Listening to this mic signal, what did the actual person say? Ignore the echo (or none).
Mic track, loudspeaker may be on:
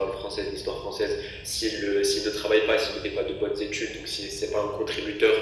none